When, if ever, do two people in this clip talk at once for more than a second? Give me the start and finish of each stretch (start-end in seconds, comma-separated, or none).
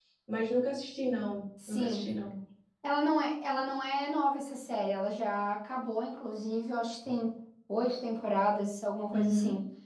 none